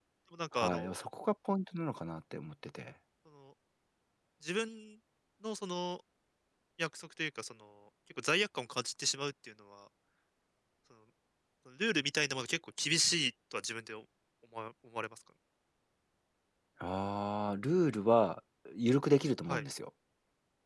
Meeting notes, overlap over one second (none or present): none